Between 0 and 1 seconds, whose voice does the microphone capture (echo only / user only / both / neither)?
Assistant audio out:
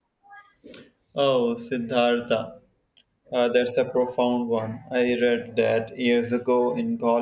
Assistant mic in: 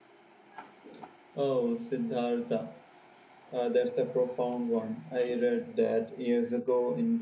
neither